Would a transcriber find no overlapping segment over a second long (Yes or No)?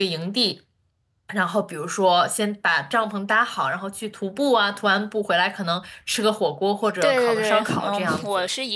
No